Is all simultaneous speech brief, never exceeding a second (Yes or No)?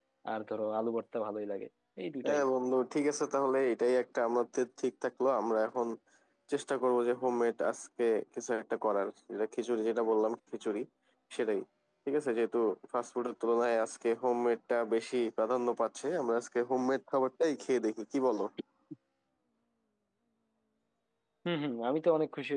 Yes